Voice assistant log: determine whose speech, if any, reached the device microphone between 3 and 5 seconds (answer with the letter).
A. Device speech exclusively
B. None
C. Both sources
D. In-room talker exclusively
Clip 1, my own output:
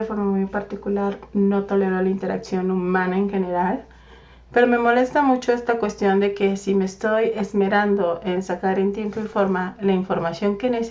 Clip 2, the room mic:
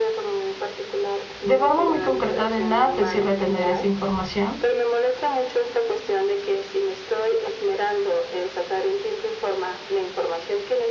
C